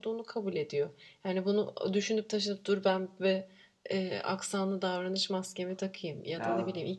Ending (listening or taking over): listening